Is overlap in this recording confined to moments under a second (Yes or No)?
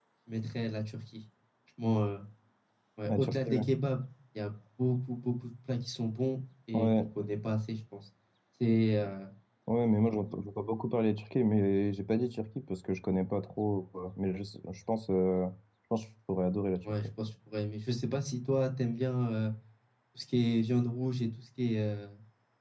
Yes